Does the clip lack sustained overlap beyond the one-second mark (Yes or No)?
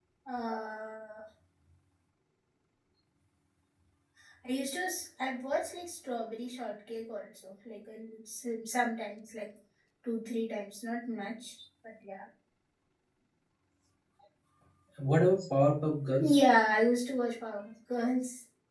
Yes